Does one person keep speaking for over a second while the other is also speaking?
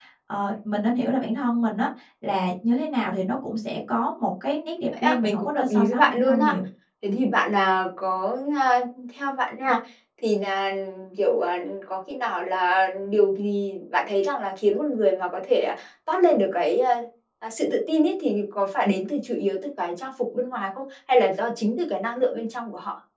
Yes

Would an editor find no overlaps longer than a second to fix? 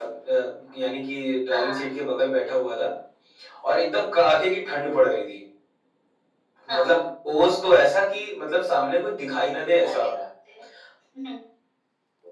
Yes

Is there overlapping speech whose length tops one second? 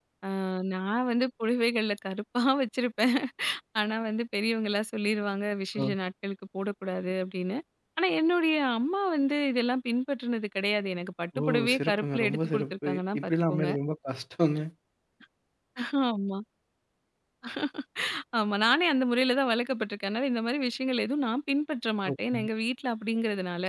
Yes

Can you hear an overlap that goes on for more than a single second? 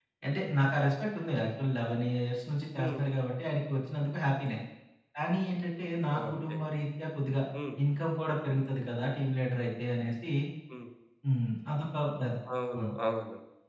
No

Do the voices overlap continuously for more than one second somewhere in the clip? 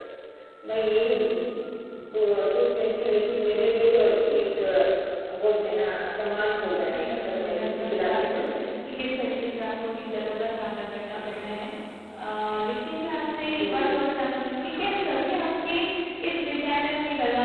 Yes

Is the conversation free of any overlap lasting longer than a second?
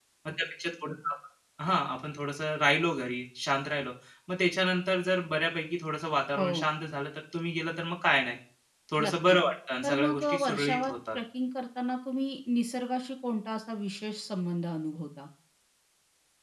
No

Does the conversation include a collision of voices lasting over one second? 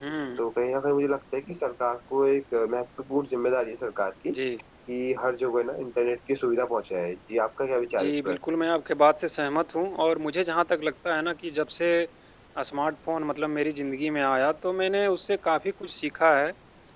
No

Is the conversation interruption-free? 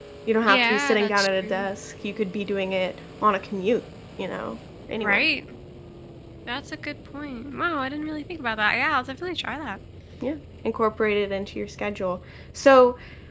No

